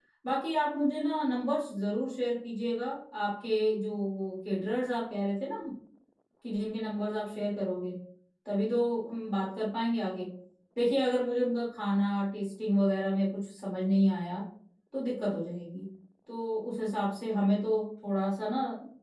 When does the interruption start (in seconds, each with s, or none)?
none